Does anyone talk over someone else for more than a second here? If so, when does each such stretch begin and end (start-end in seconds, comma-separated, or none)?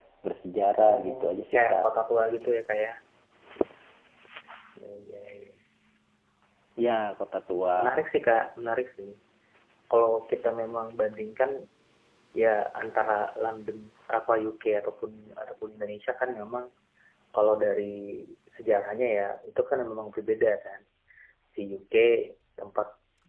none